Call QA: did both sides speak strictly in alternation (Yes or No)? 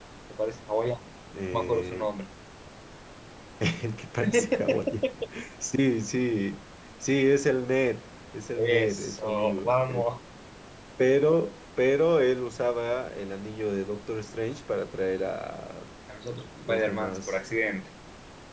No